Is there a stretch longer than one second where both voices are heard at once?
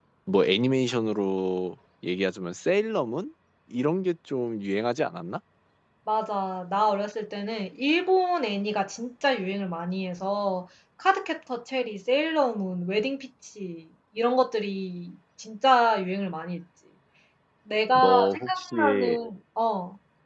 Yes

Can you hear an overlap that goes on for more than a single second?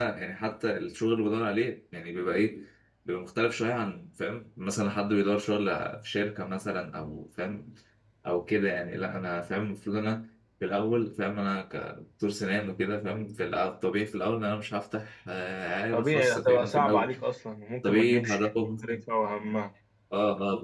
Yes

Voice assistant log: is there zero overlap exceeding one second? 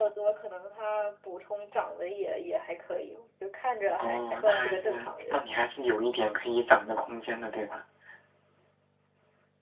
No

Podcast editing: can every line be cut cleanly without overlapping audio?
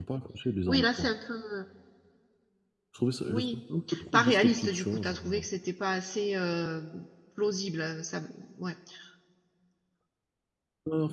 No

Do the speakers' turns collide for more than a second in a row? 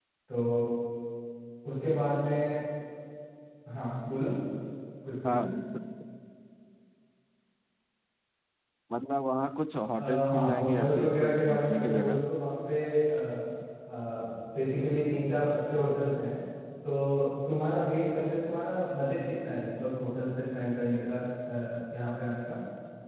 Yes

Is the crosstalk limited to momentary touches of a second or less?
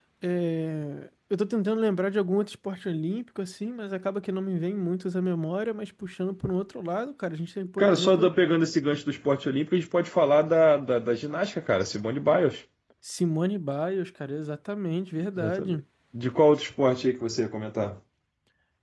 Yes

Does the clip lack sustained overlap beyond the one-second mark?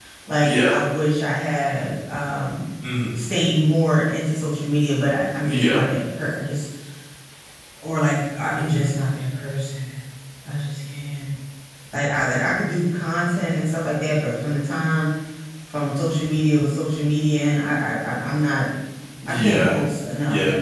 Yes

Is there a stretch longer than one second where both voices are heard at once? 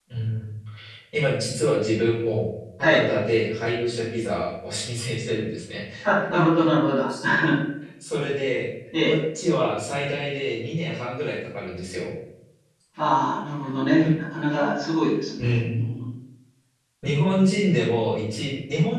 No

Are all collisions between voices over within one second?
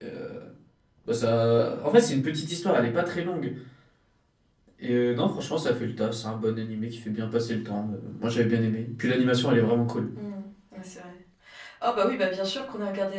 Yes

